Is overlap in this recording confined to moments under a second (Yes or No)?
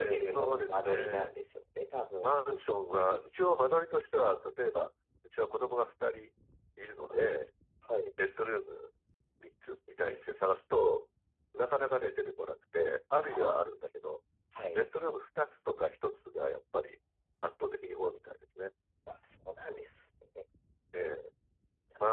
No